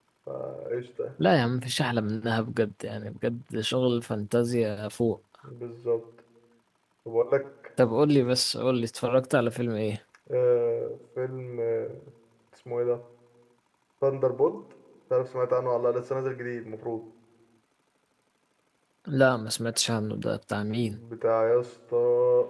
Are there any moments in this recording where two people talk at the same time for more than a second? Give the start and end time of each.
none

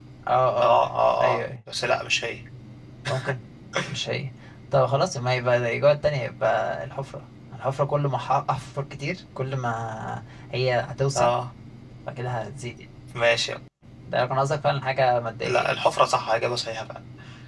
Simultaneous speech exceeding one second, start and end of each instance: none

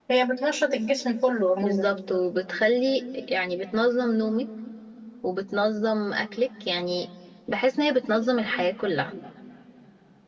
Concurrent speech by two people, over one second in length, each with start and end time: none

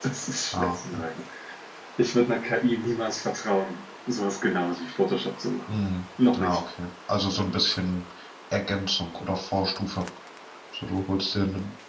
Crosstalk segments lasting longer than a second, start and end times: none

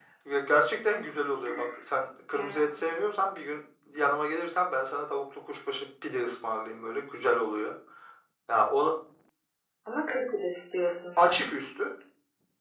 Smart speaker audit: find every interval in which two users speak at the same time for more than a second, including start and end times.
none

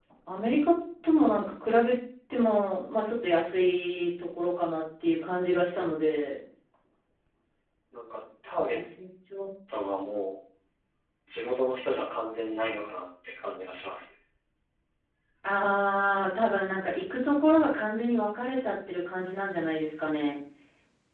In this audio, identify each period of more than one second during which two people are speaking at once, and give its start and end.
none

